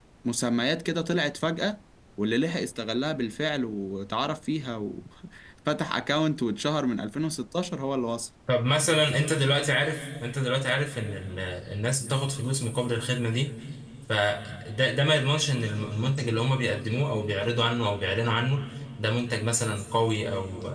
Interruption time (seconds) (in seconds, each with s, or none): none